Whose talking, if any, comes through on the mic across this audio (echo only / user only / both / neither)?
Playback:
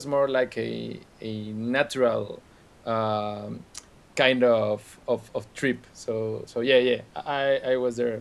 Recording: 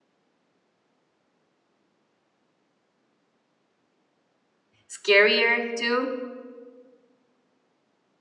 user only